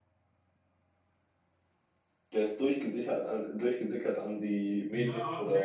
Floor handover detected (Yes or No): Yes